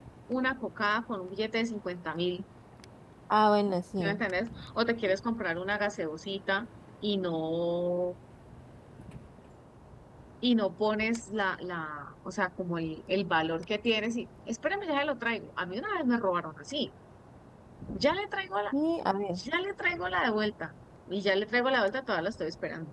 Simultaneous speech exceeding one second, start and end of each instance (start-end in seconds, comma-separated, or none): none